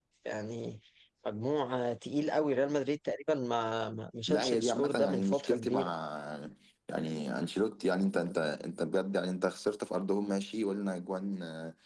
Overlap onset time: 4.3 s

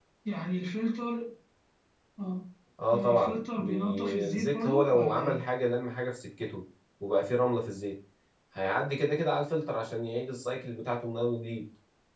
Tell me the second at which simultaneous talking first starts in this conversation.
2.9 s

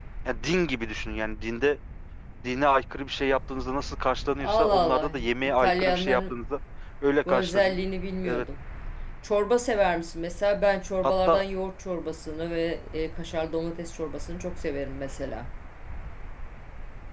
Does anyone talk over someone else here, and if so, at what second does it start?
4.4 s

